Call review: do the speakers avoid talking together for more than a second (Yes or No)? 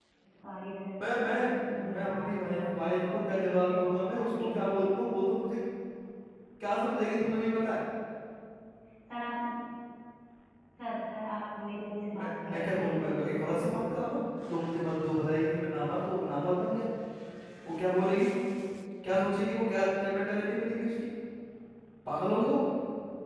No